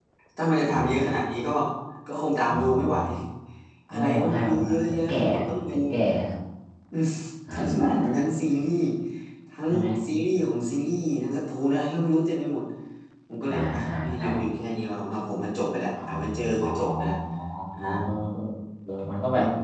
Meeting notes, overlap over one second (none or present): present